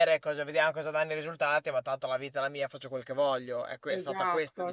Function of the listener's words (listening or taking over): taking over